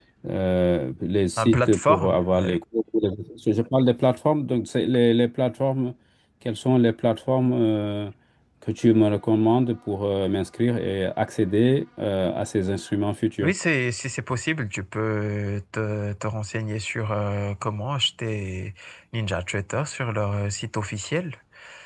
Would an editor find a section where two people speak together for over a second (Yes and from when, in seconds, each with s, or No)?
Yes, from 1.4 s